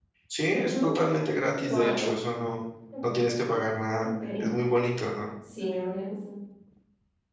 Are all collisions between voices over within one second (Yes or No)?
Yes